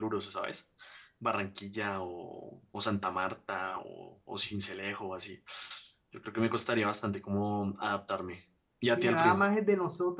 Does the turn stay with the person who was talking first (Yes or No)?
No